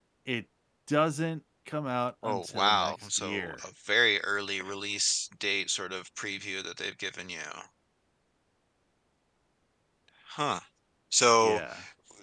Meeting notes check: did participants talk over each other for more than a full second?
Yes, from 2.2 s

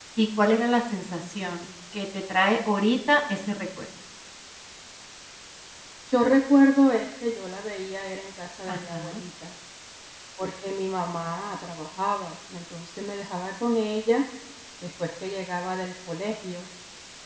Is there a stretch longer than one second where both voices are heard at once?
No

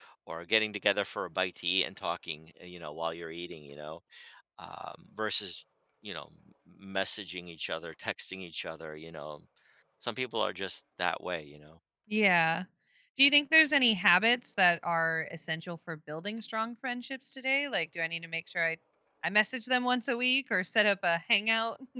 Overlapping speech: No

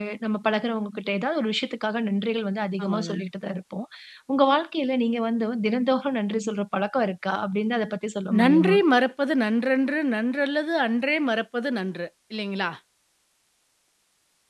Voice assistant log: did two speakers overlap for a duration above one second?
No

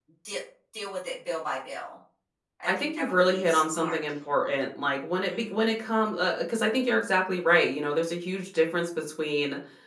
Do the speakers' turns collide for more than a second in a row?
Yes, from 2.7 s

